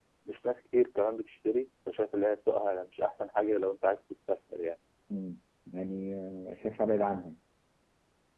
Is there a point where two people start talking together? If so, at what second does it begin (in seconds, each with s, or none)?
none